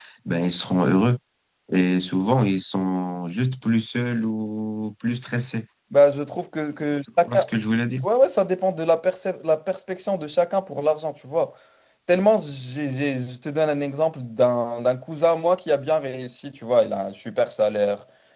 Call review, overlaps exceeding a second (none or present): none